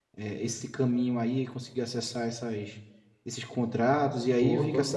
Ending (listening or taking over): taking over